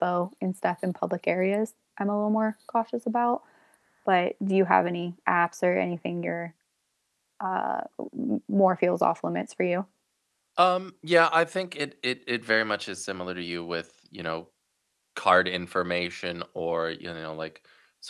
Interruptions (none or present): none